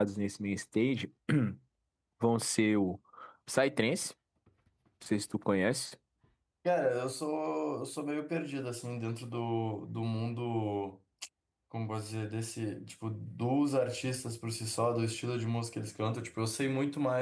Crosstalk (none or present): none